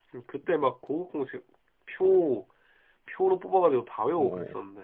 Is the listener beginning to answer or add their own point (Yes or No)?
Yes